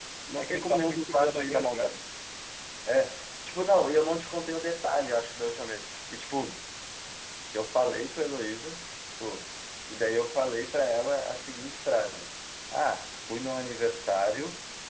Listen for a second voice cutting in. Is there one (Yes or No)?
Yes